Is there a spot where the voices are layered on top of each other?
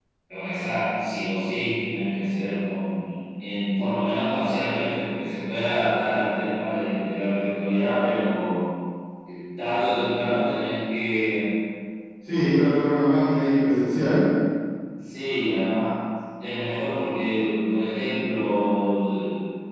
No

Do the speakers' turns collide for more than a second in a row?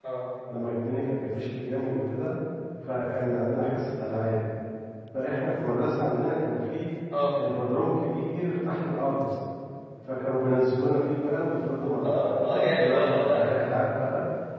Yes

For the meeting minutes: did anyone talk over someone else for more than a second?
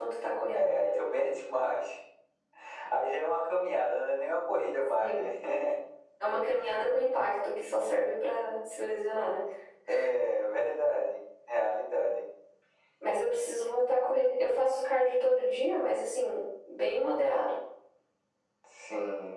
No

